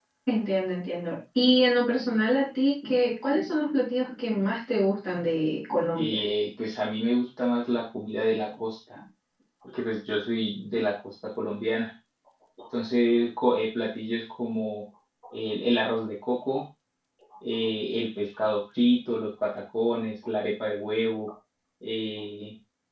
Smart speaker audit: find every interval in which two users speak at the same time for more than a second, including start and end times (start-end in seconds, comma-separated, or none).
none